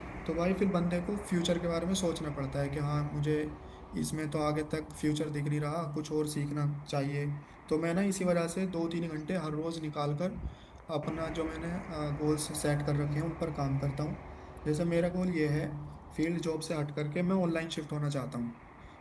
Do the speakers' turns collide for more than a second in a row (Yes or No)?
No